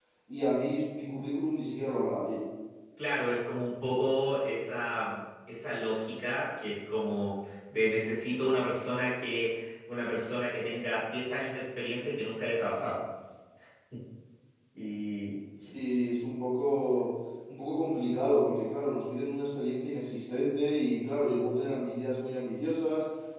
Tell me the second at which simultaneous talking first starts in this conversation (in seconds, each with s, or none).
none